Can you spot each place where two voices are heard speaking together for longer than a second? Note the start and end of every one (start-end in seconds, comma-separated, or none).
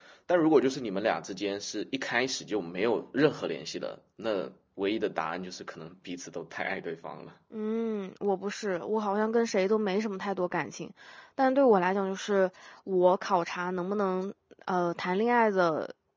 none